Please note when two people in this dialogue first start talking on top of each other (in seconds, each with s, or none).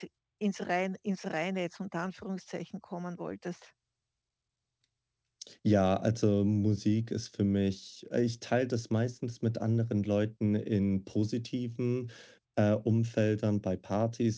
none